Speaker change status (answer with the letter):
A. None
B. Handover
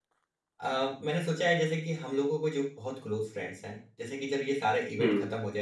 A